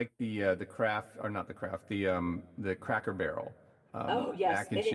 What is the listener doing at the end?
taking over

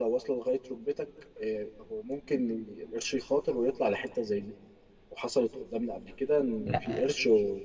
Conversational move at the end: listening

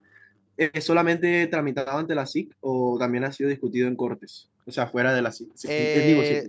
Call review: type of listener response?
taking over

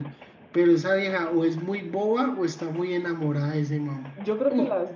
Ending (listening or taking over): taking over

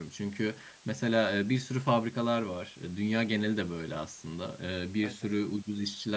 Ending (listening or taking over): listening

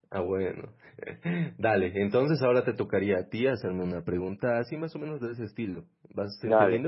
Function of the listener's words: taking over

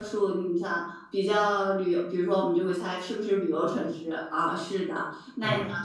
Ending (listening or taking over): listening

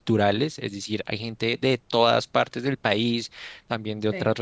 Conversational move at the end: listening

